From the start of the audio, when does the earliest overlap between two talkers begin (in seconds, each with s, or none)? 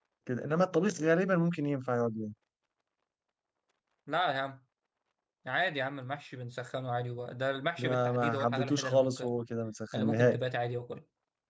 7.8 s